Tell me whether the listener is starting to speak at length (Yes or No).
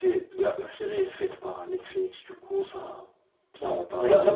Yes